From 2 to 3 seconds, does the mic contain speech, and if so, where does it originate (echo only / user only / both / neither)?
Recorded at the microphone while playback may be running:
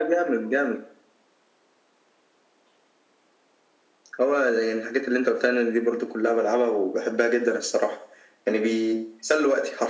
neither